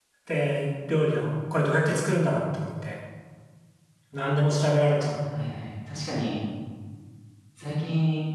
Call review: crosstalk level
none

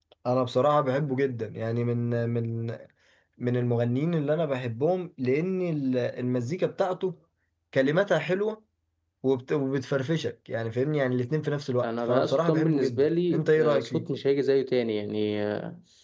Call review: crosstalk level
present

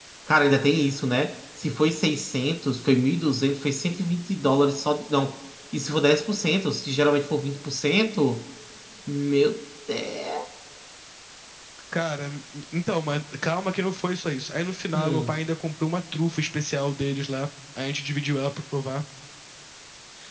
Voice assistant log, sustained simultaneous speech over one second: none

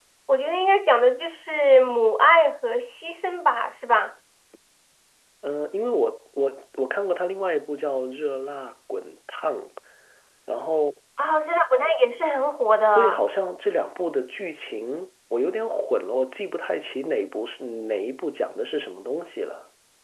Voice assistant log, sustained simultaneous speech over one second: none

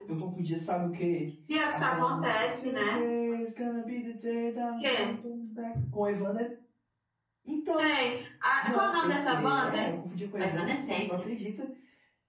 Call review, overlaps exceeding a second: present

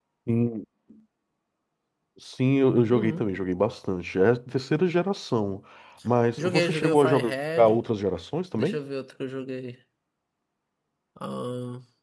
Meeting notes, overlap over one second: present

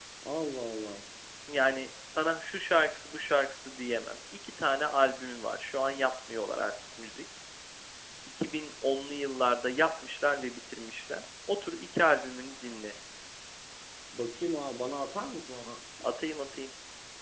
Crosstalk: none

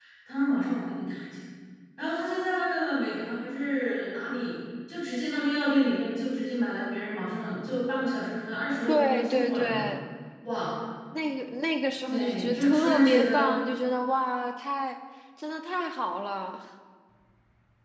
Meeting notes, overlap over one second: present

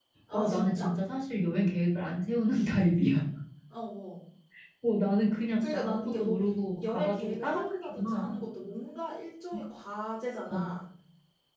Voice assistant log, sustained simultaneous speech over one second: present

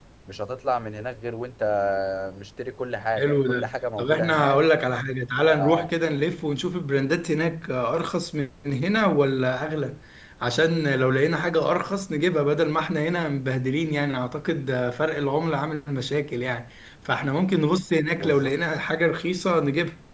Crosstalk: present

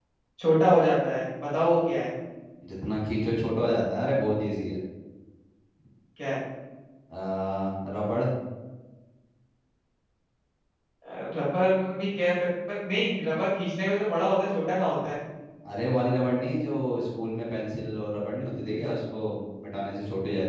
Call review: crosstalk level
none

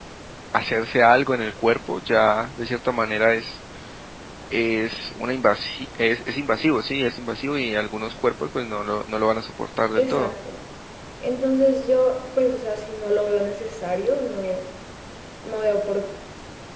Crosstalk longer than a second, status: none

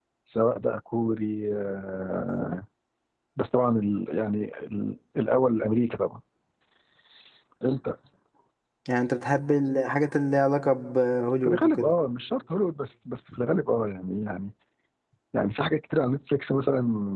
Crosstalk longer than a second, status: none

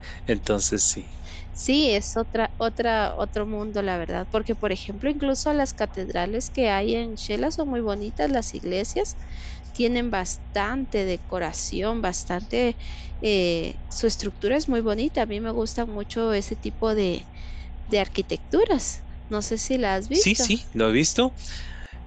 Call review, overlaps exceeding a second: none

